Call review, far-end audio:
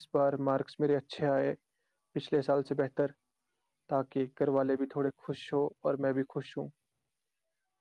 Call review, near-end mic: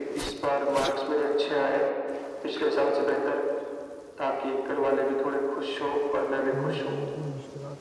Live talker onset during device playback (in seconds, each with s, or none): 6.6 s